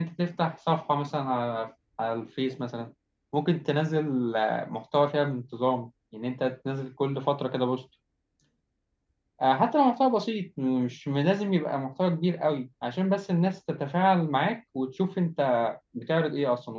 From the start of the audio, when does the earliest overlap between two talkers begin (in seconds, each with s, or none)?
none